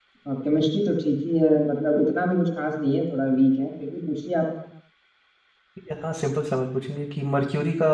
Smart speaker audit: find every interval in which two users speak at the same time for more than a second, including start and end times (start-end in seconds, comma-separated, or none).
none